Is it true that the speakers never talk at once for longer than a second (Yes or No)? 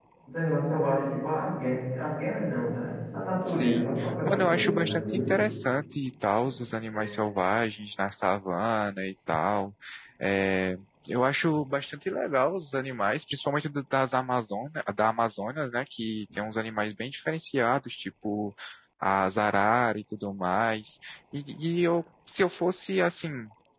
No